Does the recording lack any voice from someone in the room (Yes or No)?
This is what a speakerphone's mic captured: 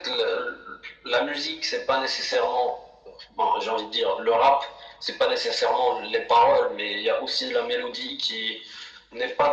Yes